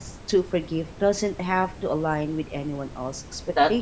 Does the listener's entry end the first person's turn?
Yes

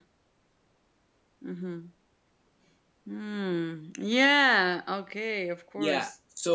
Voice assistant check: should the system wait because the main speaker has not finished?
No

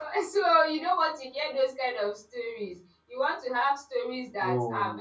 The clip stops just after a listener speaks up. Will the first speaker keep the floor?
Yes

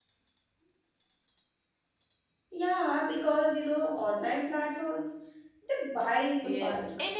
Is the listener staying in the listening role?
No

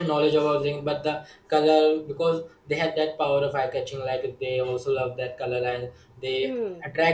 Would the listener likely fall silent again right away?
Yes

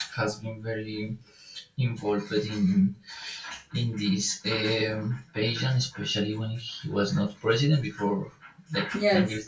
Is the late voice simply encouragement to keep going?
No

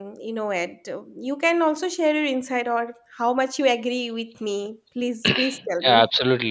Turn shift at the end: Yes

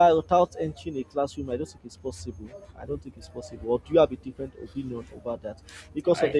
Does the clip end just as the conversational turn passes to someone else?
No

